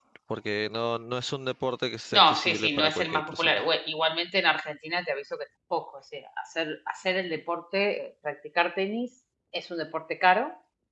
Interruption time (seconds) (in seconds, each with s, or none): 2.1 s